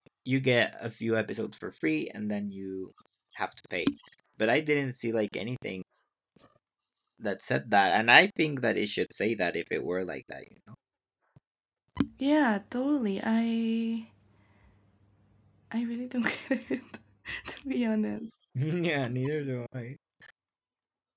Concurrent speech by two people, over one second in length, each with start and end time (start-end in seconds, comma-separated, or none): none